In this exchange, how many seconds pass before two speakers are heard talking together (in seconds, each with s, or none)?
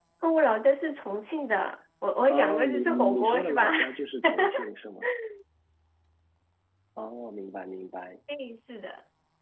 2.3 s